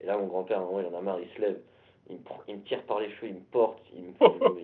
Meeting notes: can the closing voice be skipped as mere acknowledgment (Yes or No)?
Yes